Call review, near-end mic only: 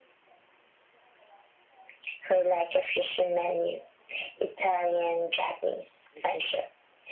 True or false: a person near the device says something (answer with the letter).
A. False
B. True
A